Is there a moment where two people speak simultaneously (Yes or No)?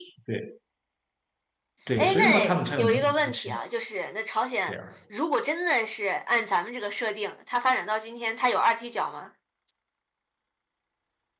Yes